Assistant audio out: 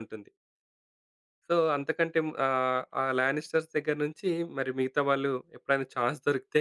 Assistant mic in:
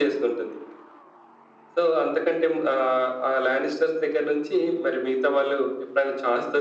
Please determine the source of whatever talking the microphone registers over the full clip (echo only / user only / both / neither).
echo only